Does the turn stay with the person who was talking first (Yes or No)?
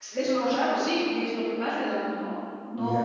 Yes